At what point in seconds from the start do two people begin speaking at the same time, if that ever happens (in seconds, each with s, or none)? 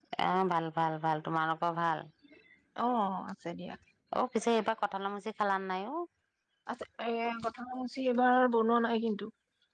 none